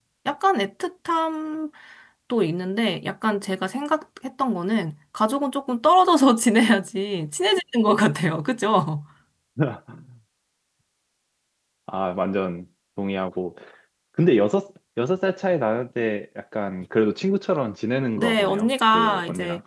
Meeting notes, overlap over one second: present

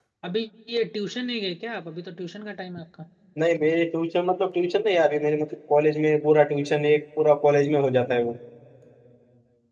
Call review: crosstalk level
none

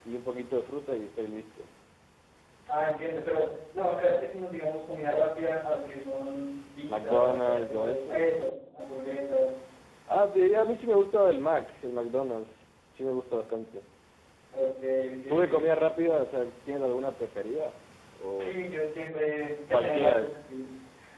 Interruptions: present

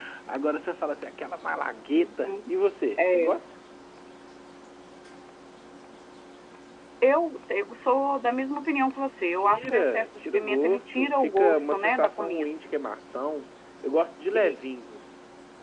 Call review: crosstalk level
present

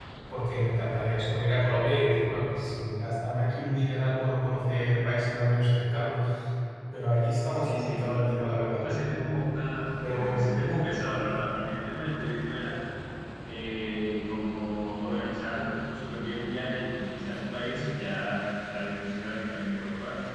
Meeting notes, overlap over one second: present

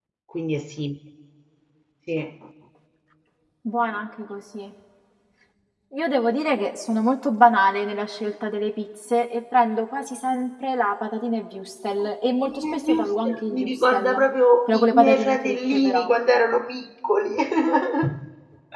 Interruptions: present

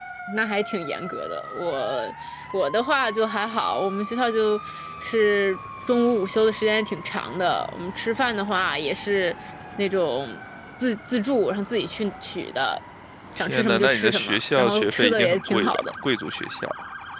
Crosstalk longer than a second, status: present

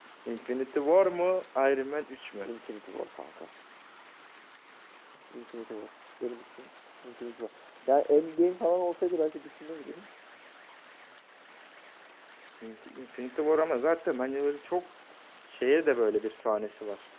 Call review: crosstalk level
none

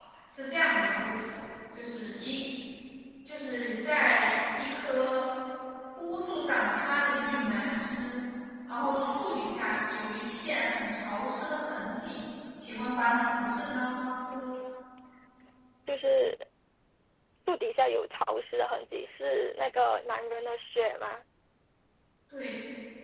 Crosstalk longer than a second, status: none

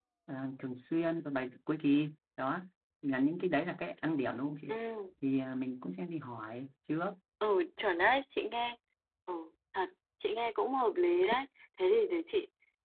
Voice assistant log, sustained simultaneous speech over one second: none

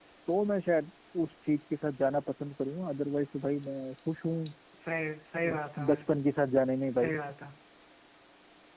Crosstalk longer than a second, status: none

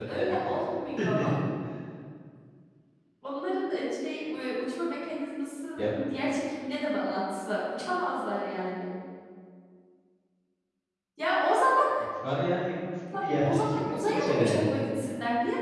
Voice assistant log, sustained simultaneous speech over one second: present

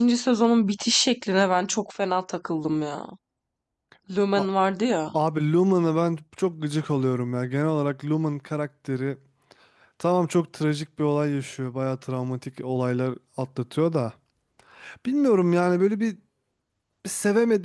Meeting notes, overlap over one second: none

